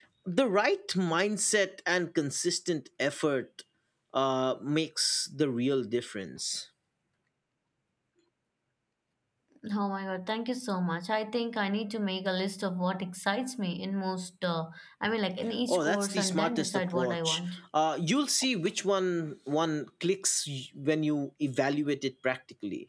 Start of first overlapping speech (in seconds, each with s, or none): 15.7 s